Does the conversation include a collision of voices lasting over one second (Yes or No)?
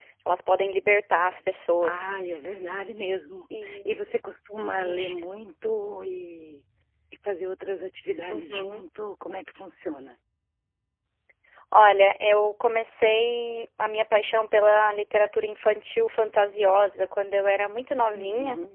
No